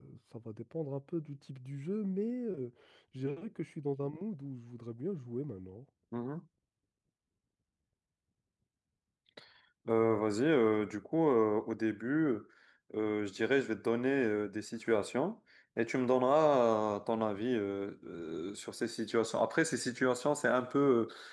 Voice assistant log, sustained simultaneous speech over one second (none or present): none